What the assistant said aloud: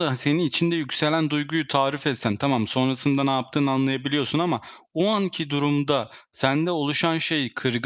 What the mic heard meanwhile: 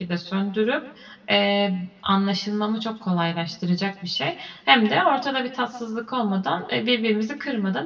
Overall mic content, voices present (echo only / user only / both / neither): user only